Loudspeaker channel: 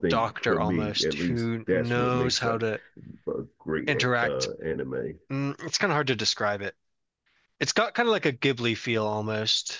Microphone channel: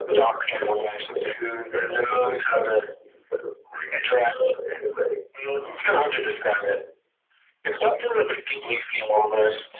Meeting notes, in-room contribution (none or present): none